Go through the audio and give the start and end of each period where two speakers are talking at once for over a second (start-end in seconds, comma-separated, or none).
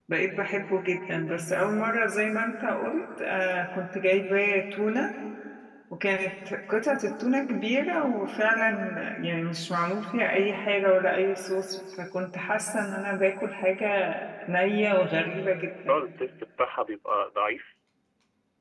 none